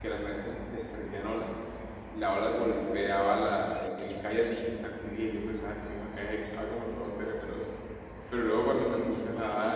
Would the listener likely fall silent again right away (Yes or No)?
Yes